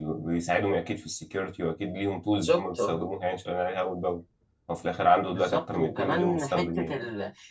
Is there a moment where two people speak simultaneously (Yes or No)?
Yes